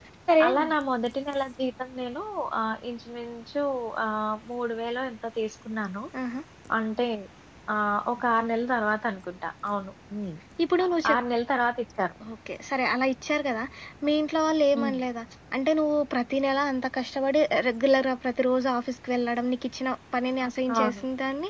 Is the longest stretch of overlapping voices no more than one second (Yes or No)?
Yes